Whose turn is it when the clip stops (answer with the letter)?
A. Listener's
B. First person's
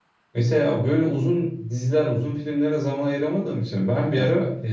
B